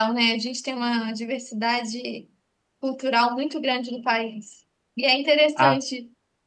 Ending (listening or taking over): listening